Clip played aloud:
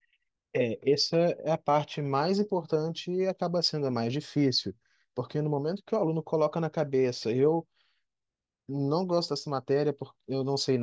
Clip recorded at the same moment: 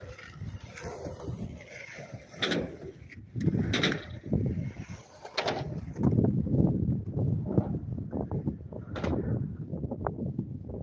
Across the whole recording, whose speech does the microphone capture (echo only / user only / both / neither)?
neither